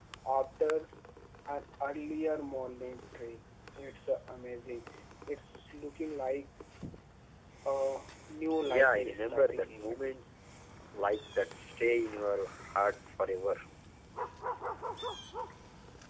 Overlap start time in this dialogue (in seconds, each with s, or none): 8.6 s